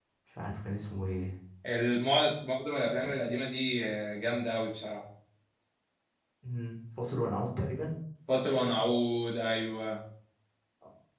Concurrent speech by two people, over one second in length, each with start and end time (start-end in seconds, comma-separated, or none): none